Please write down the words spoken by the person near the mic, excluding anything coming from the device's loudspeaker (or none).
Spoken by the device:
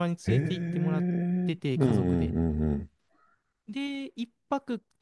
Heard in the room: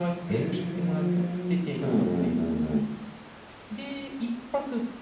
none